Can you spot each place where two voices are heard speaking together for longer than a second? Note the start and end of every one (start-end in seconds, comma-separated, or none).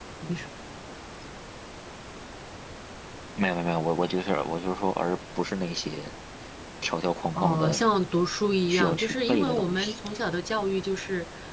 8.7-10.0